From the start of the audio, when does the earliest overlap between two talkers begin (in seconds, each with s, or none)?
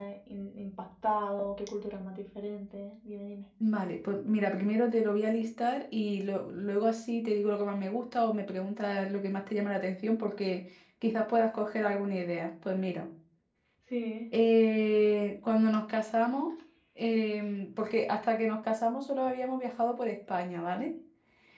none